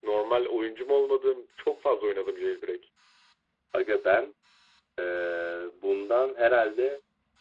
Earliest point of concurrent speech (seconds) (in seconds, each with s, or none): none